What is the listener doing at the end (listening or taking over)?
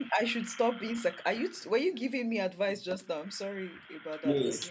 taking over